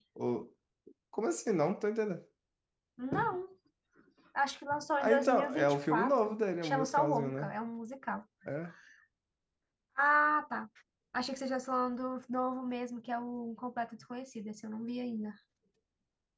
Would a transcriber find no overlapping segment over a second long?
No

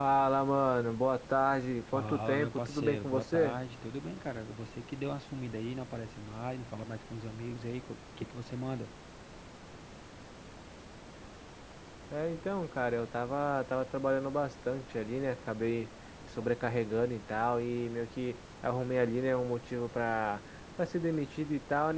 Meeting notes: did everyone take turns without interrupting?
No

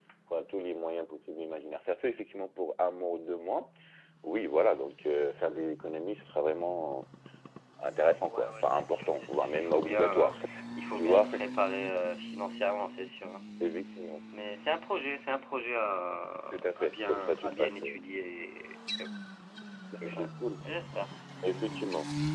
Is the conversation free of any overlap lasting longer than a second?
No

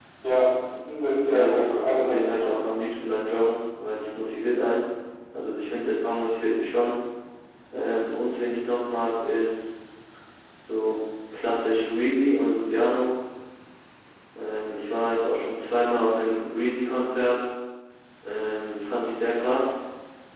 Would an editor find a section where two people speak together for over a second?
Yes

